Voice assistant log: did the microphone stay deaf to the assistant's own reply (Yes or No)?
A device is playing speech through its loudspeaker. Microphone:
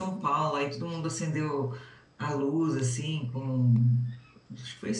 Yes